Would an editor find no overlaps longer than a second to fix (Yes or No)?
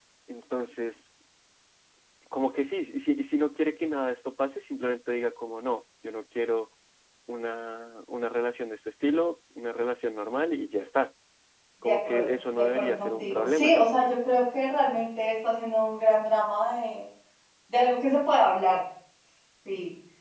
No